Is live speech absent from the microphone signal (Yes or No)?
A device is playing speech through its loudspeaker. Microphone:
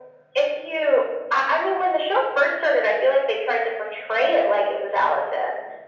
Yes